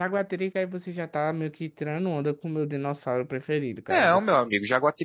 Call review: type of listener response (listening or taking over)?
taking over